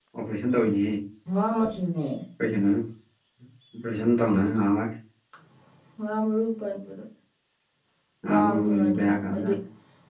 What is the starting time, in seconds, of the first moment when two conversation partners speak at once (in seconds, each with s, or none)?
8.3 s